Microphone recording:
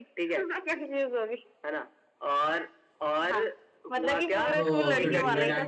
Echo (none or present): present